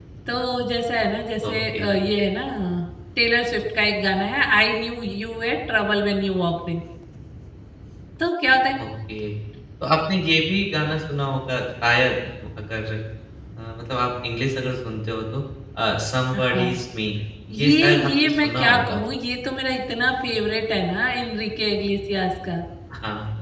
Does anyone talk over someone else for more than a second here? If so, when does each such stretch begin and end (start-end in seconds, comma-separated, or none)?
17.6-19.0